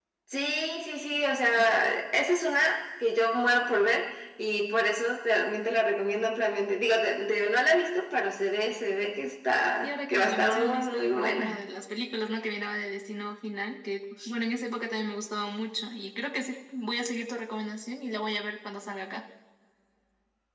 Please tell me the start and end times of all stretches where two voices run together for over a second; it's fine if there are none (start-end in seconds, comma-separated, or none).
9.8-11.7